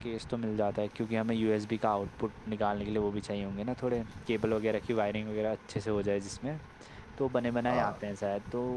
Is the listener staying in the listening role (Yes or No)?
Yes